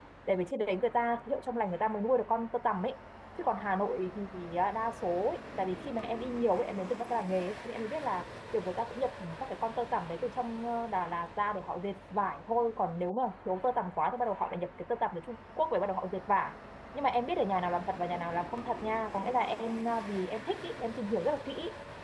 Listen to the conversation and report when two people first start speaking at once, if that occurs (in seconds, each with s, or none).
none